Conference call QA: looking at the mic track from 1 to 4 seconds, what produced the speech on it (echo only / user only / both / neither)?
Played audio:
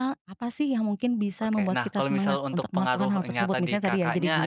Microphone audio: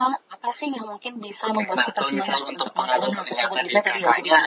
echo only